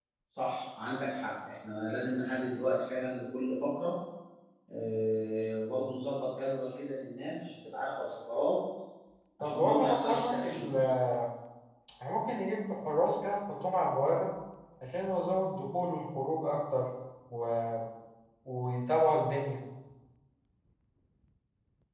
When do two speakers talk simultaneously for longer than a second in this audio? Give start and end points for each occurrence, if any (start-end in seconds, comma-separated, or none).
9.4-10.7